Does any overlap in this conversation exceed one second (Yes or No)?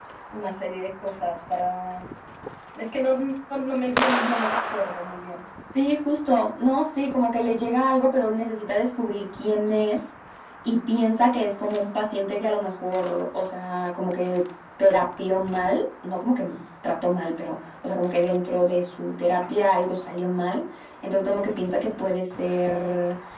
No